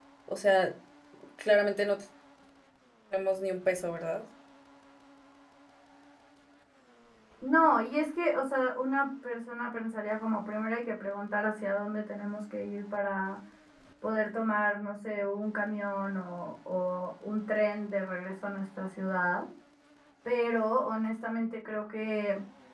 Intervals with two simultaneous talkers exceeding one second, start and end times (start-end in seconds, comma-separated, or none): none